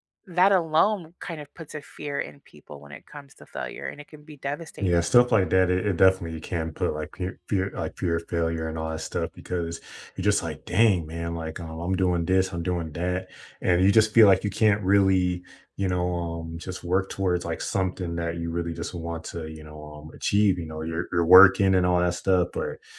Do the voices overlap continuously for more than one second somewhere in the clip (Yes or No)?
No